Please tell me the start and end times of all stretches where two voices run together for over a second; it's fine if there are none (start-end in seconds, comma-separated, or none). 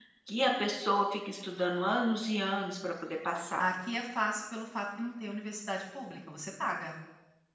none